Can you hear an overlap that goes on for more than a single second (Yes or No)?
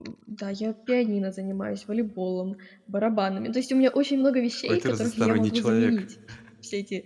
Yes